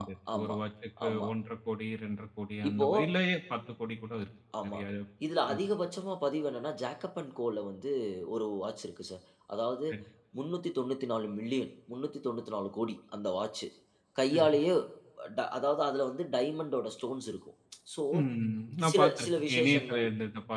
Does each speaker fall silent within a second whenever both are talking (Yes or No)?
No